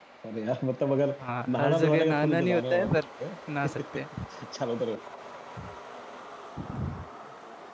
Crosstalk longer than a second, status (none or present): present